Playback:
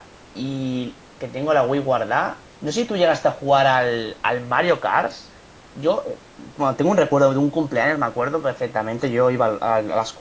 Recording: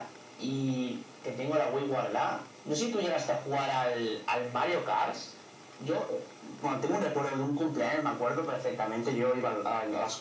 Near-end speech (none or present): none